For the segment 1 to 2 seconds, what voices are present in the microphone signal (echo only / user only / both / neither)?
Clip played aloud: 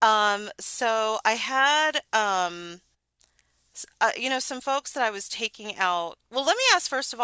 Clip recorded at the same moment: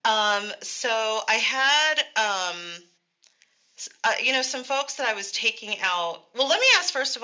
echo only